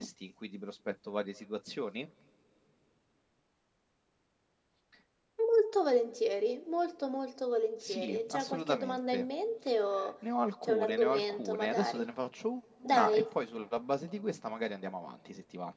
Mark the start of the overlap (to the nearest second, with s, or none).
8 s